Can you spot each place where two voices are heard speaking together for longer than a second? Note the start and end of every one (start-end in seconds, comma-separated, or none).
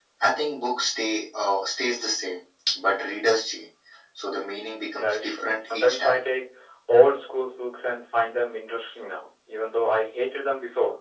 5.0-6.2